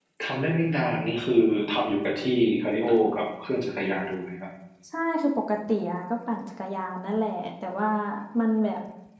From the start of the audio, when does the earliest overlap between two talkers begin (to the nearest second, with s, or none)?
none